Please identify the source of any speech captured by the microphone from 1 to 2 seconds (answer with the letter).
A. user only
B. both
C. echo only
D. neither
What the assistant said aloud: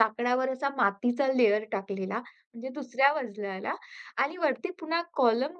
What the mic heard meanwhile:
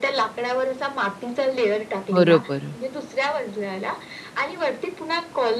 C